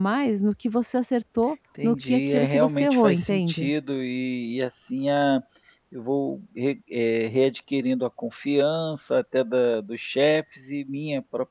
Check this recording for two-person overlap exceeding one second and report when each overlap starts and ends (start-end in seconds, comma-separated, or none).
1.8-3.7